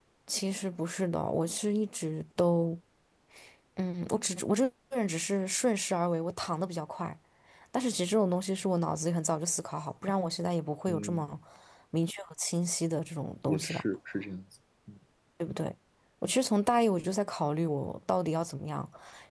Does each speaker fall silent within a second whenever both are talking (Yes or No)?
Yes